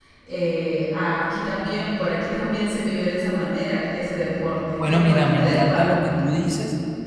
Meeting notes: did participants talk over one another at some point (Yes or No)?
Yes